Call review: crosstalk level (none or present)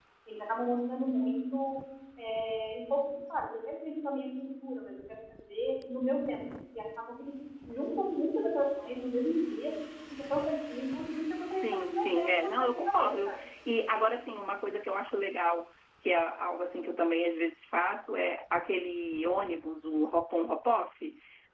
present